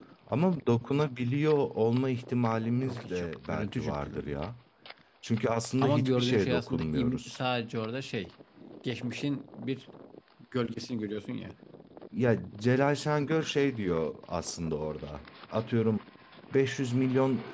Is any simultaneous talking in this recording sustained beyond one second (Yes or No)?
Yes